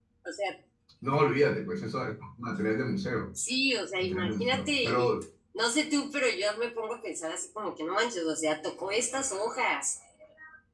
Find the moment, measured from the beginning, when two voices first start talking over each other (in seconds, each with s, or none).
4.0 s